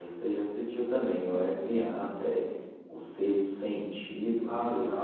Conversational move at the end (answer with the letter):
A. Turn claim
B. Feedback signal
A